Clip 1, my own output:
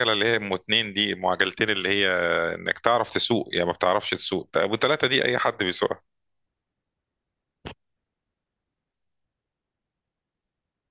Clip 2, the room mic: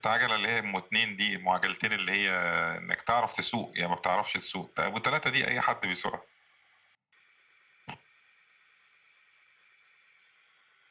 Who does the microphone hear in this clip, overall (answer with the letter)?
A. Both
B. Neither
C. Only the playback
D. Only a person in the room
C